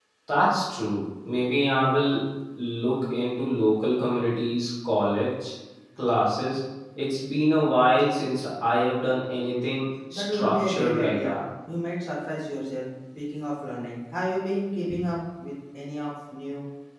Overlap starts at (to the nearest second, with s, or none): 10 s